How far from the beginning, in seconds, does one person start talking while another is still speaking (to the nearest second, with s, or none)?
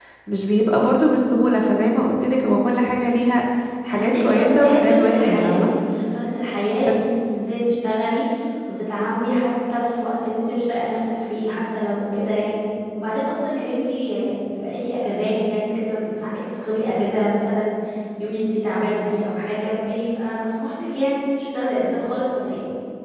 4 s